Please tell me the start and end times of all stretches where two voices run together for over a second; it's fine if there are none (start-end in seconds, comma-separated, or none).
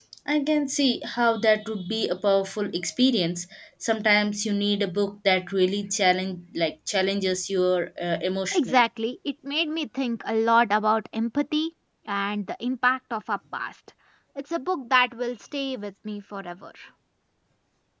none